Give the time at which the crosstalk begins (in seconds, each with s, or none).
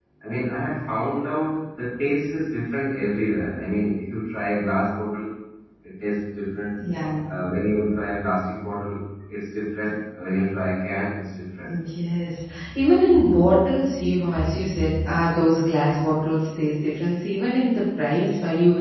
none